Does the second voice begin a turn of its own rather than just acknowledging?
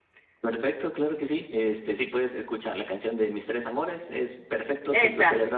No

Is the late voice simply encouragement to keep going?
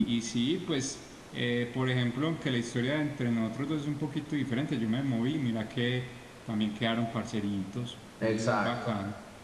No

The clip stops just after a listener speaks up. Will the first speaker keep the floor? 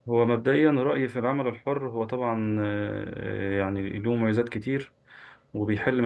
Yes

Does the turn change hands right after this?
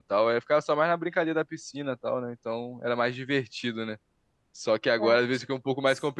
No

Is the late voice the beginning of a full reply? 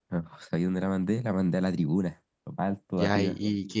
Yes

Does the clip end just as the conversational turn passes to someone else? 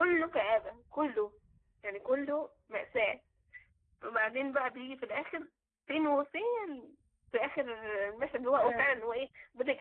No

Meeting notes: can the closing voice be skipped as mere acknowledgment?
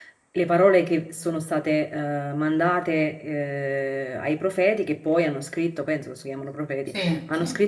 Yes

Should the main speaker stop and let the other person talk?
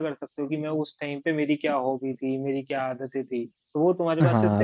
Yes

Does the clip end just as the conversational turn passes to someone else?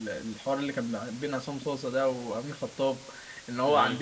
No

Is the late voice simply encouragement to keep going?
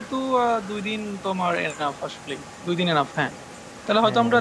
Yes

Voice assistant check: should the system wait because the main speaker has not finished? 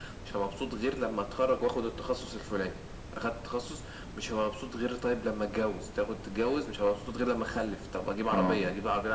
Yes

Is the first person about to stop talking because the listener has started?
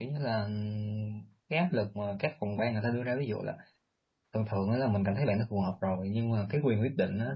No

